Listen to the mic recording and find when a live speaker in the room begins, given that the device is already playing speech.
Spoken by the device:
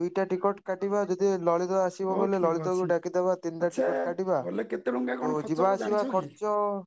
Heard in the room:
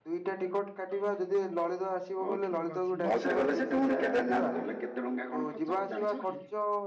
3.0 s

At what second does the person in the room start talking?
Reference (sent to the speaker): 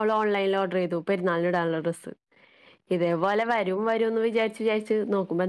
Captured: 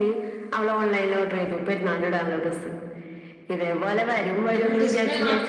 4.5 s

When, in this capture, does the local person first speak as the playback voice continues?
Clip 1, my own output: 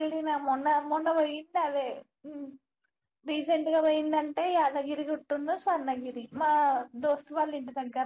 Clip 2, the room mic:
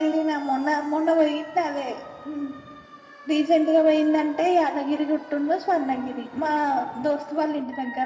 none

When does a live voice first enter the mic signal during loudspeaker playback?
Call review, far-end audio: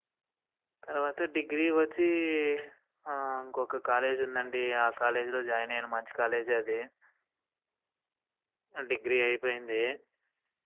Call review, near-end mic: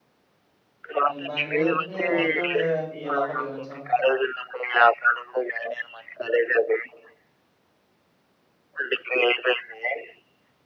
1.1 s

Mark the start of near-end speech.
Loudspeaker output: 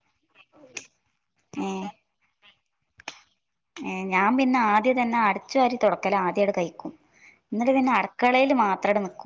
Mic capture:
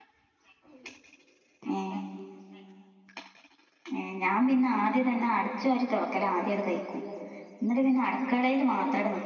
none

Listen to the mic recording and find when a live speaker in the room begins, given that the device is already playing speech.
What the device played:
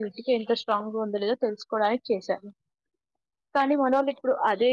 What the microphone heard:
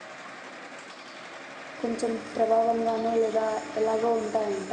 1.8 s

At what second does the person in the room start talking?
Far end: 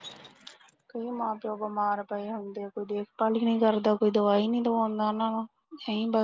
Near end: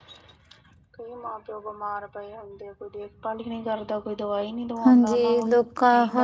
4.8 s

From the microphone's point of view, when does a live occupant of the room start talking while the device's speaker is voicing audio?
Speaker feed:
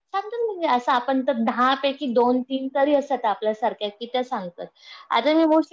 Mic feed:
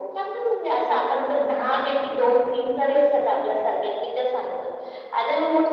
none

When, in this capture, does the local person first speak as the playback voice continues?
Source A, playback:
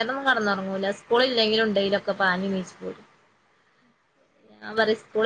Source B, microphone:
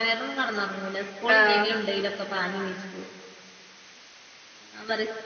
1.3 s

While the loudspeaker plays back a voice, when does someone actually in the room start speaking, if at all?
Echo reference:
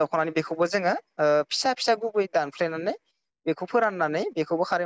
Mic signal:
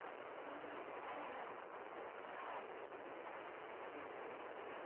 none

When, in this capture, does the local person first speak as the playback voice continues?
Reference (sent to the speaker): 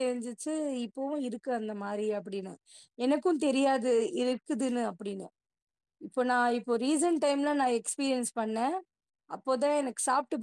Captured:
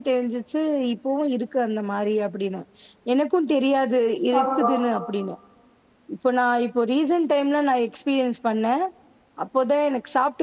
4.4 s

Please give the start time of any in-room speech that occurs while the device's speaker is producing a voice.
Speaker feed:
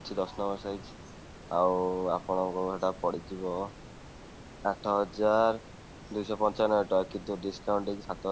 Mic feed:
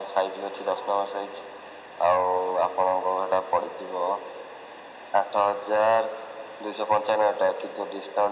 none

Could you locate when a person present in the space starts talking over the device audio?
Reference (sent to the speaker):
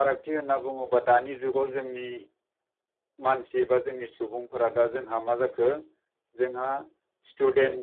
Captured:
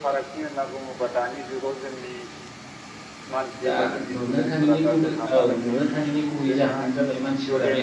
3.7 s

